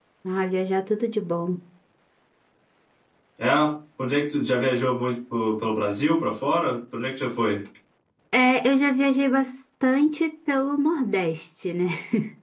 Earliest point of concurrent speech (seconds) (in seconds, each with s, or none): none